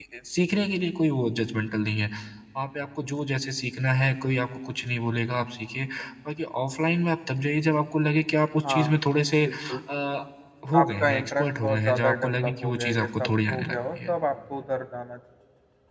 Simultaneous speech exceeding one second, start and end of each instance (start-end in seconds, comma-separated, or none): 10.8-14.1